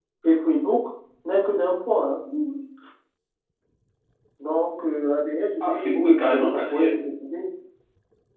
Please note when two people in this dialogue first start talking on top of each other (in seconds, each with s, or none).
5.6 s